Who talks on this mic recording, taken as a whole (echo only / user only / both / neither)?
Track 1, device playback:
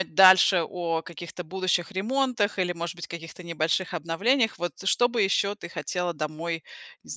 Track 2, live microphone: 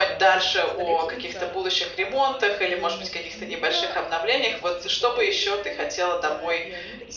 both